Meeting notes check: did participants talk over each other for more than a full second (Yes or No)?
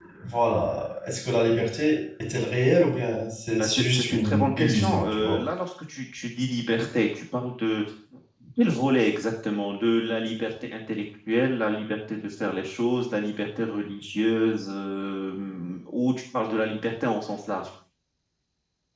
Yes